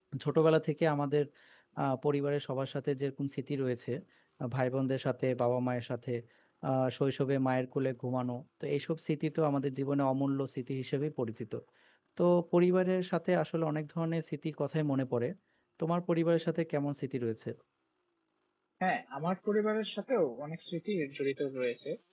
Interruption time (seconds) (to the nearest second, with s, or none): none